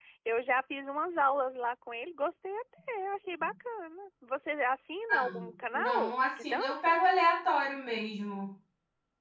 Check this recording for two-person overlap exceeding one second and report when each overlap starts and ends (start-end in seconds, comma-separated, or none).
5.1-7.0